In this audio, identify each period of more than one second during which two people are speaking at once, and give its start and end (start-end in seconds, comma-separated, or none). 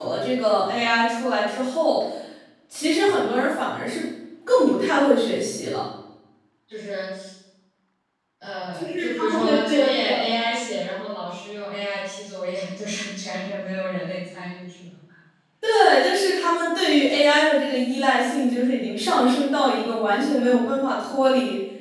8.8-10.1